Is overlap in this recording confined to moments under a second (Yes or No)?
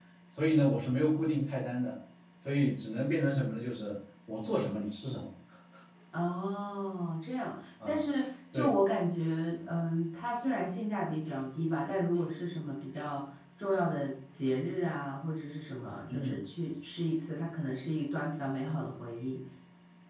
Yes